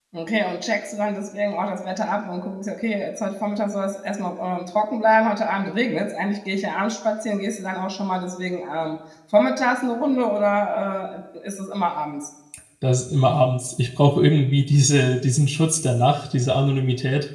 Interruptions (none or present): none